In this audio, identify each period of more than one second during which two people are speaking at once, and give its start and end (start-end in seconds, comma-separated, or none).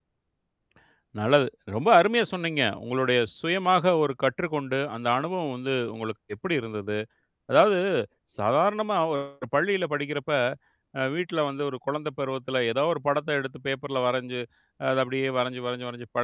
none